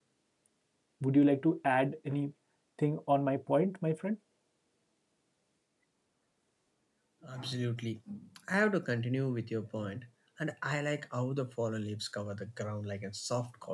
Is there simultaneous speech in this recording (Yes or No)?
No